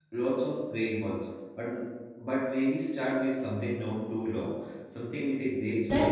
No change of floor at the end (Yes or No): No